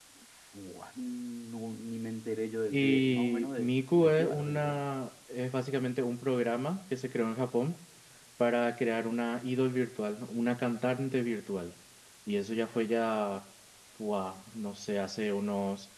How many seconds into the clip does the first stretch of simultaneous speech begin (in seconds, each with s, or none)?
2.7 s